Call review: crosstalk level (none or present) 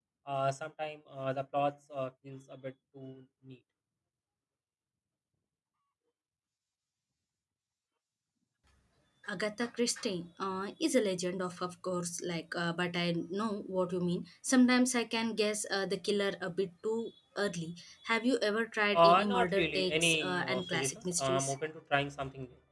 present